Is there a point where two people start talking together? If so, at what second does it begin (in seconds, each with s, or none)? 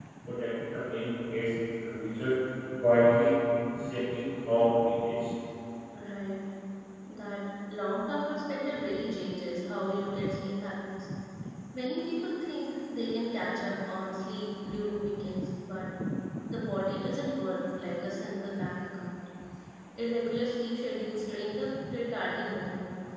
none